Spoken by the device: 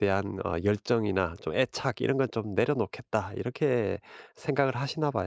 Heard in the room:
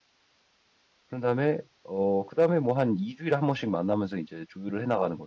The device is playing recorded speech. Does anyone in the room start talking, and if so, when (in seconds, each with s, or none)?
1.1 s